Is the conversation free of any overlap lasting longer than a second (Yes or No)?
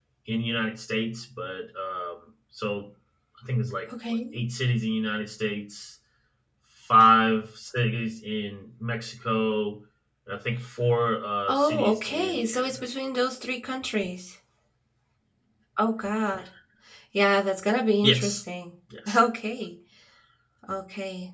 No